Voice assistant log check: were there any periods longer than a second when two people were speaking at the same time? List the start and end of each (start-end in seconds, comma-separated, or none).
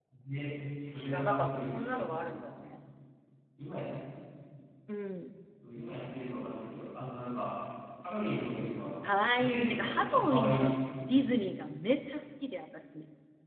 0.8-2.5, 9.0-10.7